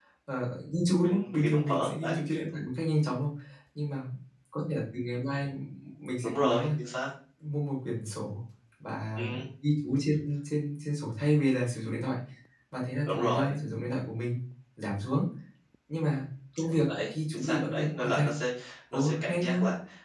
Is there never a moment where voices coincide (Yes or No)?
No